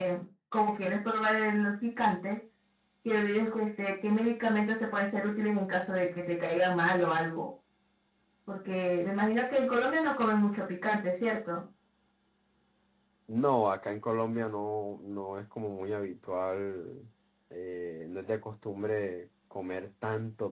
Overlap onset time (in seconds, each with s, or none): none